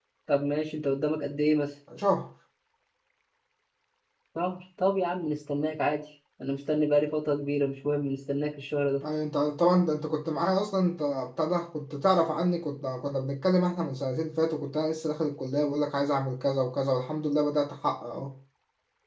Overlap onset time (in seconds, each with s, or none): none